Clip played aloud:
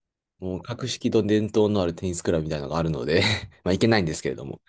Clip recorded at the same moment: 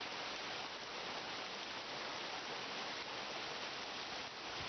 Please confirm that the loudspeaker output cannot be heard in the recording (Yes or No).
Yes